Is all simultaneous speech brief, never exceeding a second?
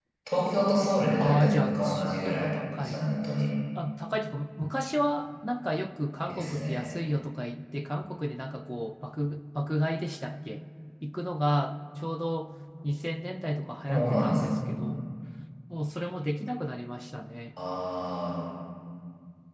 No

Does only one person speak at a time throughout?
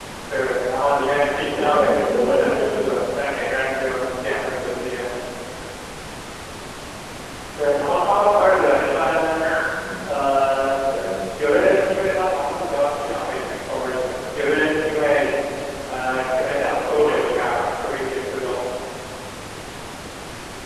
No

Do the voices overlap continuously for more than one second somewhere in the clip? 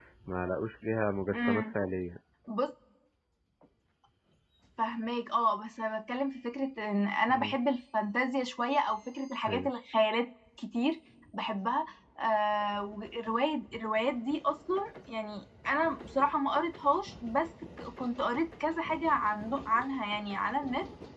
No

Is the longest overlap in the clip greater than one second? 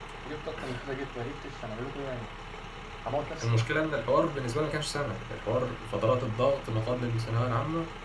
No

